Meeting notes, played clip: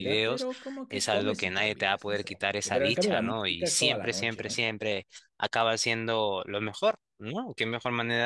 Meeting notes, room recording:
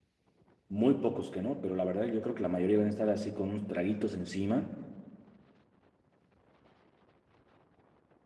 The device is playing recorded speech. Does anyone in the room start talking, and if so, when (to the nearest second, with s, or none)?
1 s